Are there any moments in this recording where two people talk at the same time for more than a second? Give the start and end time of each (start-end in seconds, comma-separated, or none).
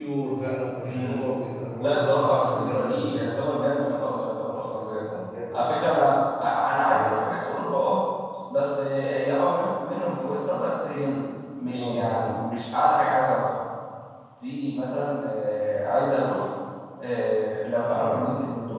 1.8-3.2